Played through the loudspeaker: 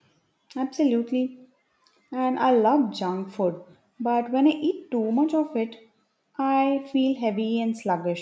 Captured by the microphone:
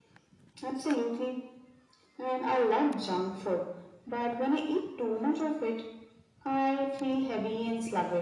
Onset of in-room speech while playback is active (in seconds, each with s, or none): none